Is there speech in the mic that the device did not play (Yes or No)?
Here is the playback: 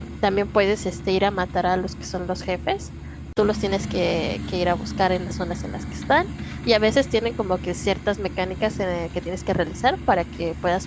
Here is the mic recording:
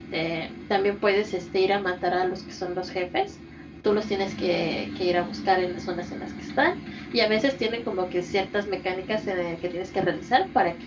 No